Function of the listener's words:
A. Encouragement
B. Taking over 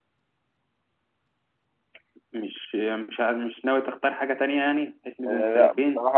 B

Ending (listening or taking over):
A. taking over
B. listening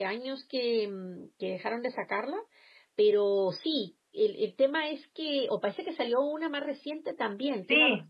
A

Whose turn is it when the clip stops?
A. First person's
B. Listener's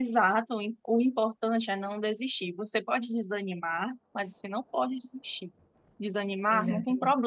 A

